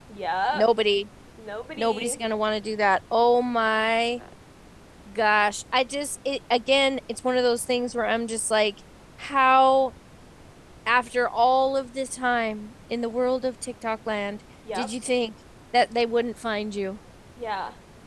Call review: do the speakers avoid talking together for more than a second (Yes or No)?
Yes